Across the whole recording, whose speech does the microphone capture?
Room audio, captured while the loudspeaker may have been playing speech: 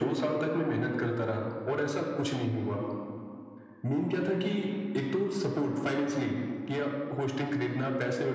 echo only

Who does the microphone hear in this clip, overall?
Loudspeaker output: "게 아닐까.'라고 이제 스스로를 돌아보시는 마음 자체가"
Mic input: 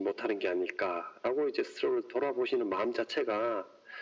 echo only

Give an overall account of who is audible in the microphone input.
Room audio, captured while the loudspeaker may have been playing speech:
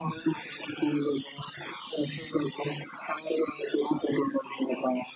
echo only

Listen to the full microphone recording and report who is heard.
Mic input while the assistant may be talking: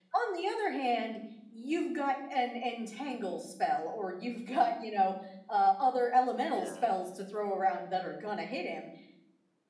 both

